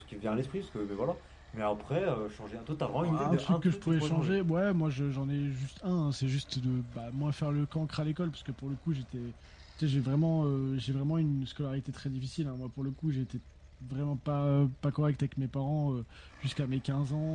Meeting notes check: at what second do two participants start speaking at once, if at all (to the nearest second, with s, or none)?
3 s